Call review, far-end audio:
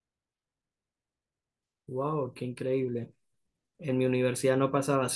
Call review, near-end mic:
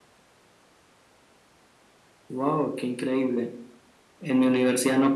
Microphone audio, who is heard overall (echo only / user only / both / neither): echo only